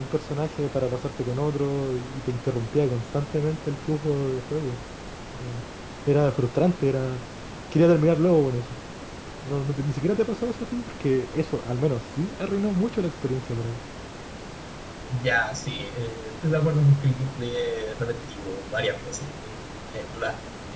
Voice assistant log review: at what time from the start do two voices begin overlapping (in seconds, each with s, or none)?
none